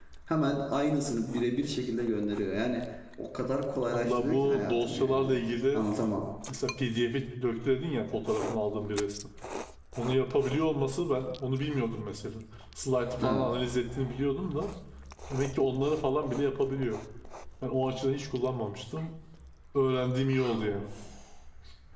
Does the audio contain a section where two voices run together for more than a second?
Yes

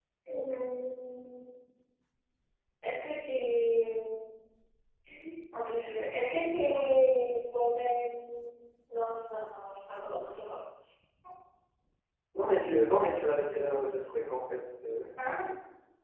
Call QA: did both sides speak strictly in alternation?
Yes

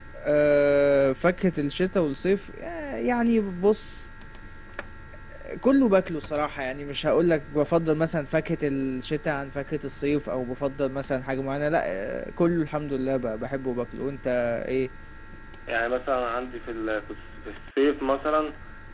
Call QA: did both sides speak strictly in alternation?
Yes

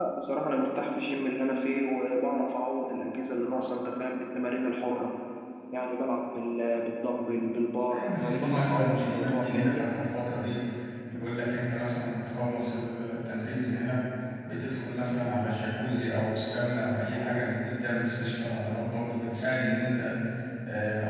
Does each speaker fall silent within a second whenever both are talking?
No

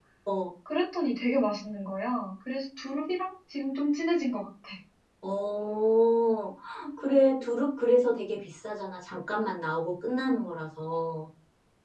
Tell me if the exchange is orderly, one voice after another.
Yes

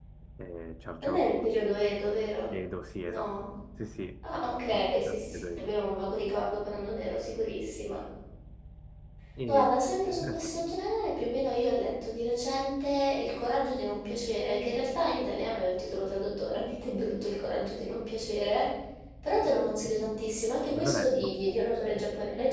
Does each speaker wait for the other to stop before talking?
No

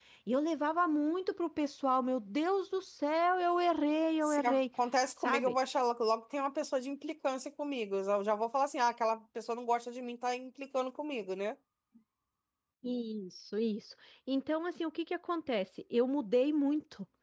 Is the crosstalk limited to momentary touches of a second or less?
Yes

